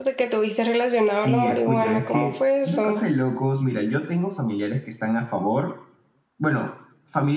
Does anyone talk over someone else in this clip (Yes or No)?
Yes